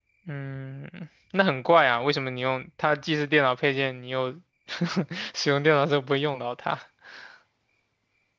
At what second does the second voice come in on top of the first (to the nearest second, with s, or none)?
none